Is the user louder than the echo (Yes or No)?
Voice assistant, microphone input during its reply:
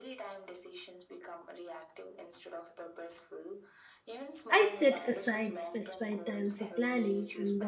Yes